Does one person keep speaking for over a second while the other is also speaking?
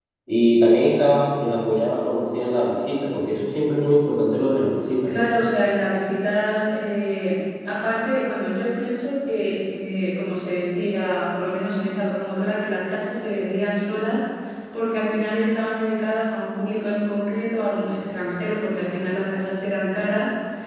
No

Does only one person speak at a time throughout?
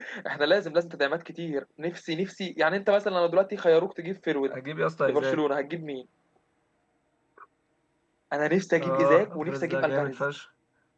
No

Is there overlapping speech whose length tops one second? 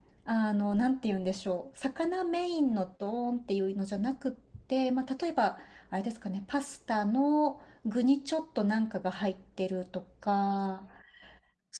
No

